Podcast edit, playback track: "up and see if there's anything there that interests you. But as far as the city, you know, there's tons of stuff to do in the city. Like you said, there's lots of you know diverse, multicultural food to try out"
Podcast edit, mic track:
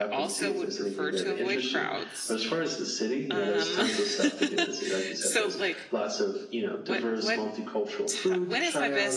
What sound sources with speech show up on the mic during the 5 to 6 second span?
both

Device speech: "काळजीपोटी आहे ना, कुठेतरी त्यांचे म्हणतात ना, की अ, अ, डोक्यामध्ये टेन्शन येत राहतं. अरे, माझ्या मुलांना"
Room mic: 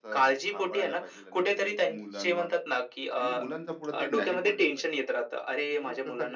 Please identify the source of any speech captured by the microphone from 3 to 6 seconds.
both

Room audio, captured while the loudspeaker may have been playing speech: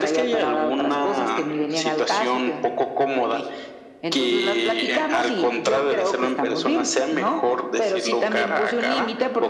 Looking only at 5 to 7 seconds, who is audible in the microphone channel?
echo only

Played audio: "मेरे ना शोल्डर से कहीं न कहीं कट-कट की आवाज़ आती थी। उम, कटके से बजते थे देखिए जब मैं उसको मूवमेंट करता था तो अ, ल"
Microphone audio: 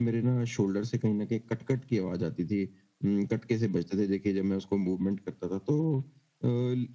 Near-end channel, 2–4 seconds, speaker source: echo only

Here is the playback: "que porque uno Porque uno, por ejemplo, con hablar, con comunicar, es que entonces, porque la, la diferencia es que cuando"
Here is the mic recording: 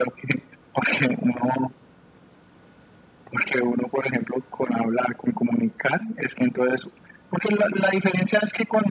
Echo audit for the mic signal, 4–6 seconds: echo only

